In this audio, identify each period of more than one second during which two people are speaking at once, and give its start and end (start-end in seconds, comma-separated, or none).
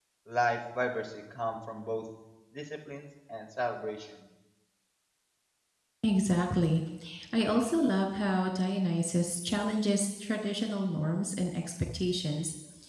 none